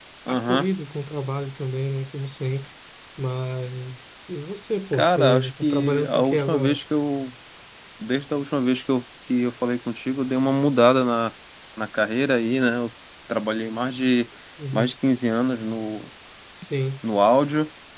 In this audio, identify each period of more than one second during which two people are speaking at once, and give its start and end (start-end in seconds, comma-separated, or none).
4.9-6.8